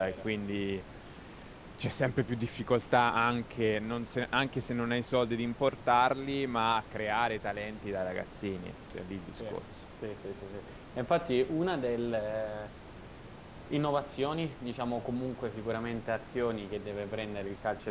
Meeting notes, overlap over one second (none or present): none